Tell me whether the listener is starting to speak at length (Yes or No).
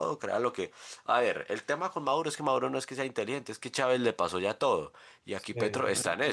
No